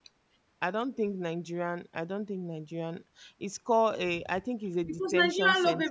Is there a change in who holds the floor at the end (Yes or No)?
Yes